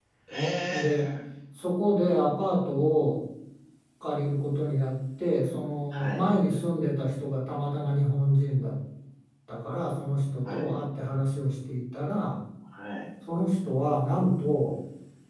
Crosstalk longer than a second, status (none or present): none